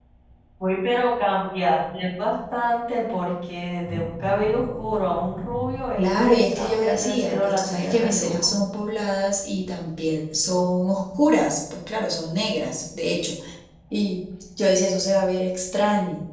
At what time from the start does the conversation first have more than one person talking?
6.0 s

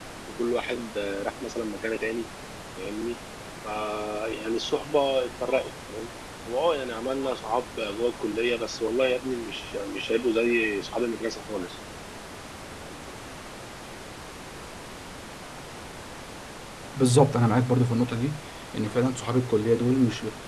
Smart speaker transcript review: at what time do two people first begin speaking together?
none

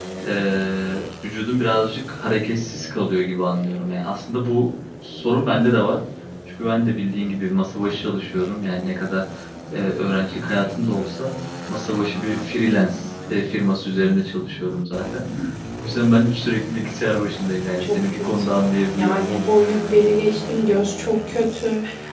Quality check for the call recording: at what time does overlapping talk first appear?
17.8 s

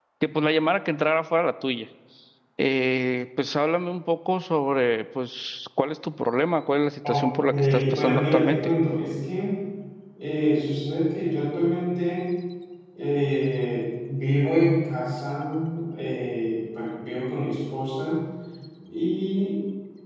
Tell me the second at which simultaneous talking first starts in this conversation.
7.0 s

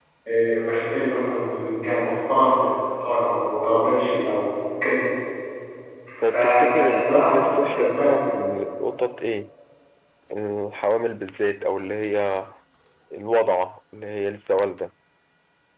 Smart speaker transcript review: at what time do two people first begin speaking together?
6.2 s

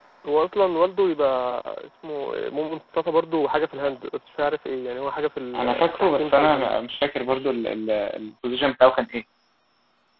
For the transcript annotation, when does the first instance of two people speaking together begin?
5.5 s

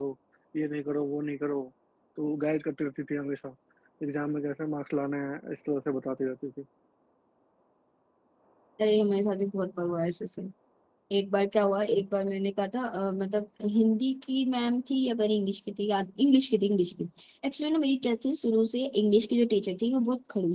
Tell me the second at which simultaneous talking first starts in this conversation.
none

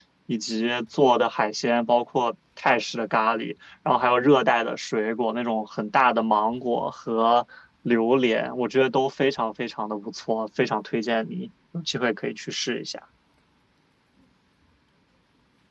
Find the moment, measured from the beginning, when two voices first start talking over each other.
none

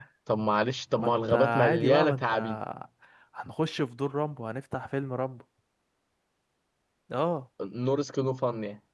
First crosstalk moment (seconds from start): 1.0 s

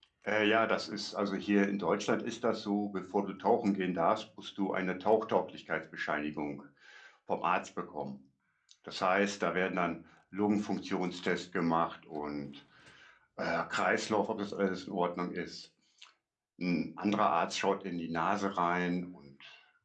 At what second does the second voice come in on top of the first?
none

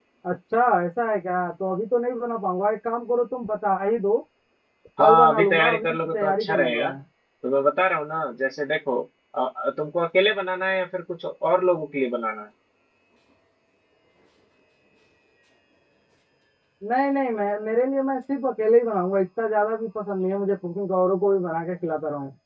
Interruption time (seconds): 5.0 s

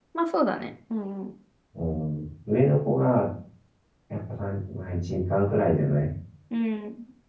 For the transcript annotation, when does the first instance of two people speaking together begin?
none

